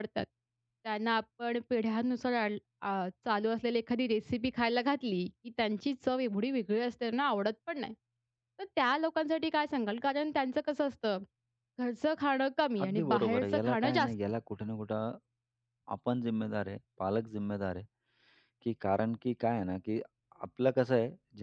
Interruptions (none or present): present